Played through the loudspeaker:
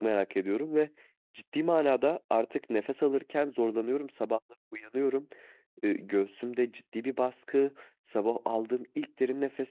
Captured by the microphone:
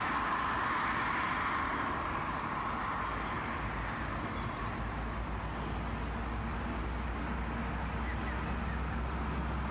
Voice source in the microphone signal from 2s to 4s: neither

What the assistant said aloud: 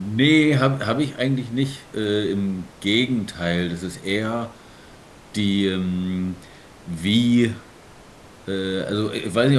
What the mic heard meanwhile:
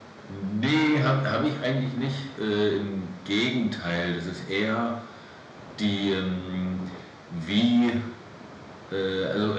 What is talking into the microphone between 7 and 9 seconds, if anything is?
echo only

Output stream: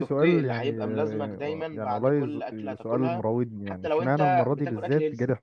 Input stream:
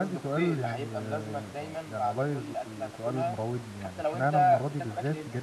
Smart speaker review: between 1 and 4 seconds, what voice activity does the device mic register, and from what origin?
echo only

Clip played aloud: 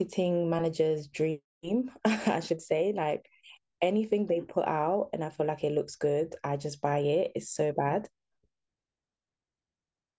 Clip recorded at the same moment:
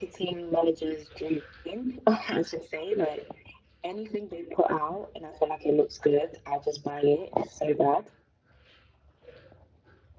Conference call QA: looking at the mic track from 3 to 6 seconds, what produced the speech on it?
echo only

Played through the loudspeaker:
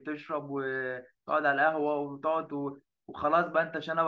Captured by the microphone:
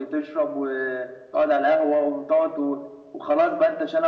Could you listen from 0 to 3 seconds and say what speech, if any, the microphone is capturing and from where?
echo only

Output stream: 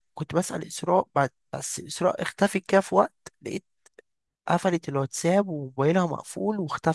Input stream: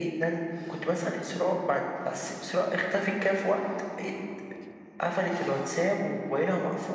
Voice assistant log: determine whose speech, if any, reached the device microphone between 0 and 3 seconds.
echo only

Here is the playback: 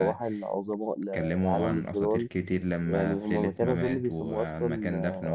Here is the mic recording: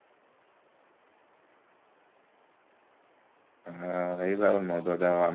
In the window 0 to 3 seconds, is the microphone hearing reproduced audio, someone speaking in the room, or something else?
neither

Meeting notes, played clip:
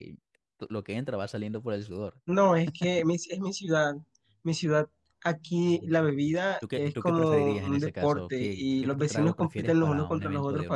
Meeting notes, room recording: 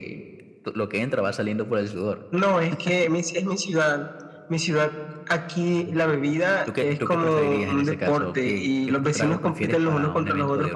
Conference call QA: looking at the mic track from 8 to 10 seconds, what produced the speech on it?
echo only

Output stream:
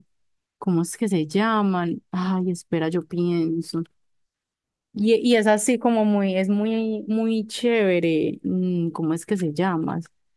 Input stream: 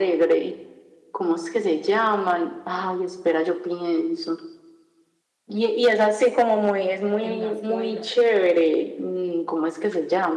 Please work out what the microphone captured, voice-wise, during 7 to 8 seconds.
both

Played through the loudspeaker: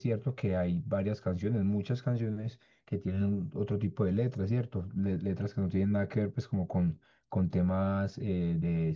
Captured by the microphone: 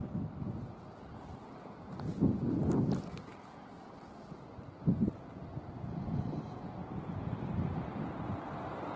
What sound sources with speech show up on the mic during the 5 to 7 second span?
neither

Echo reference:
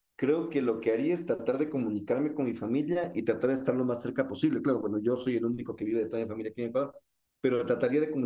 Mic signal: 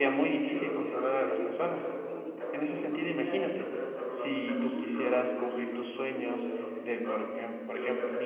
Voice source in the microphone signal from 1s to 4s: both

